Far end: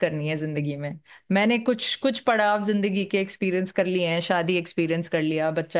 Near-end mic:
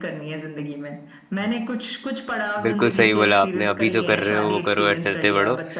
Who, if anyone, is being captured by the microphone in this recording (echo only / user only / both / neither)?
both